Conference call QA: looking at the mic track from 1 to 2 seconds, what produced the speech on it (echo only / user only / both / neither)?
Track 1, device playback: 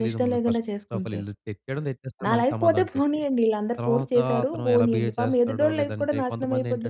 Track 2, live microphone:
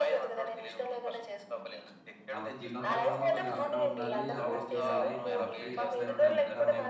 echo only